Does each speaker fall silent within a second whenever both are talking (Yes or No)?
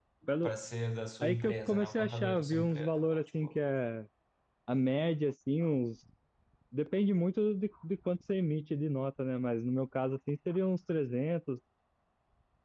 No